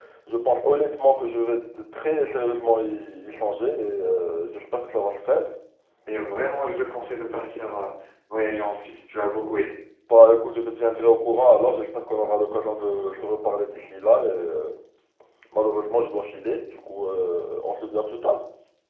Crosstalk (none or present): none